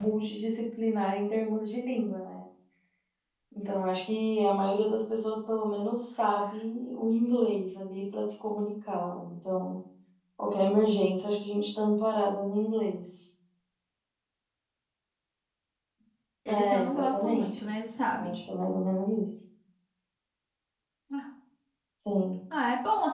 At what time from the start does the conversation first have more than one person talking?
16.5 s

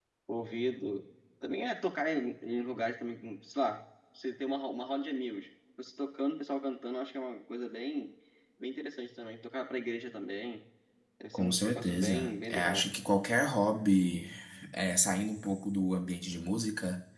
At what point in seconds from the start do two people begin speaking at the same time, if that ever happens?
11.3 s

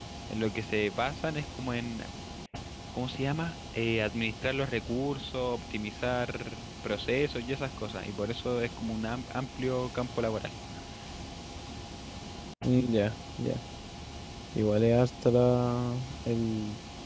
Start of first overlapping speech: none

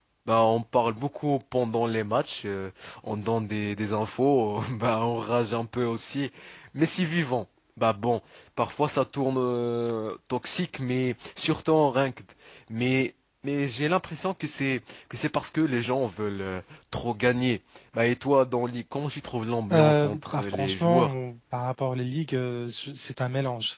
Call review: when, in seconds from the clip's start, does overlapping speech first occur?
19.7 s

